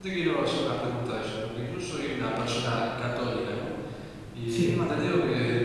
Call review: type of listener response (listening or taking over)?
listening